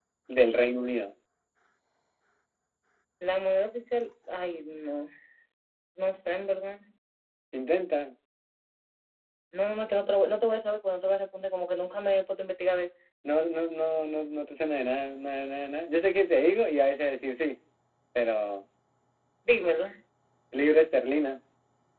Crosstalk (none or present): none